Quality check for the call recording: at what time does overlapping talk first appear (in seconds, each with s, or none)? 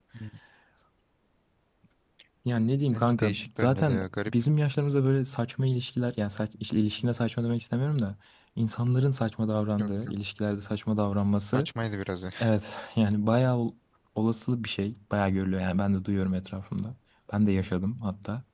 2.9 s